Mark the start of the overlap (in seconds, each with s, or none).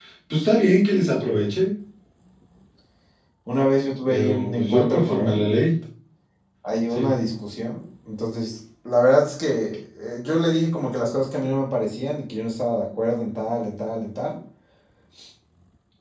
4.1 s